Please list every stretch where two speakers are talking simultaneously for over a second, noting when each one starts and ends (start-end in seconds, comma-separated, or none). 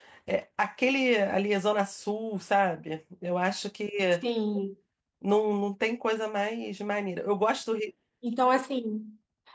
none